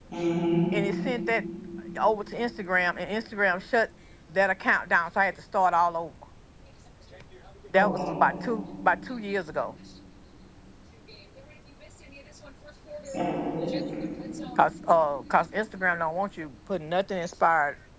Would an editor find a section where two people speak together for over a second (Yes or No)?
No